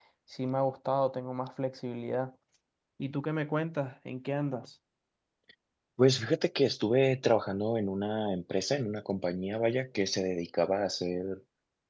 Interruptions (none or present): none